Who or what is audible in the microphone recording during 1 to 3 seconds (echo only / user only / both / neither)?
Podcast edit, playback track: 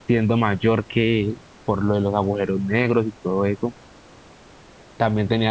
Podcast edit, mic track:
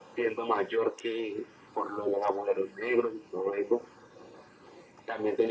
echo only